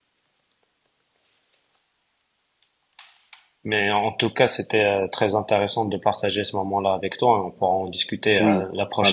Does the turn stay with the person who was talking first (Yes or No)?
No